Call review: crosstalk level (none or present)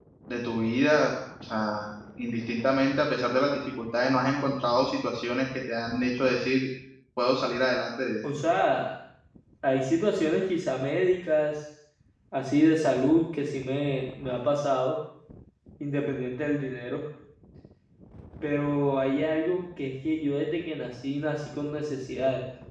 none